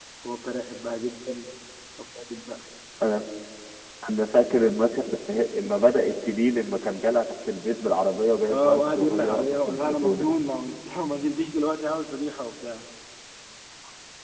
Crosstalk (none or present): present